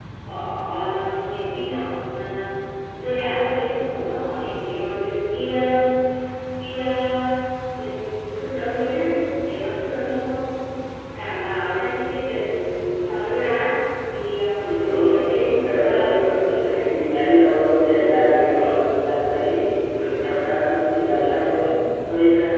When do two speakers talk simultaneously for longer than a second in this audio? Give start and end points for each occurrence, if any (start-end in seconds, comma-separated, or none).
14.6-16.7